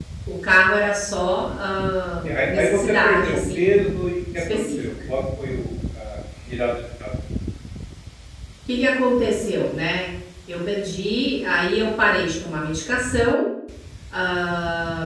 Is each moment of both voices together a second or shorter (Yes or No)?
No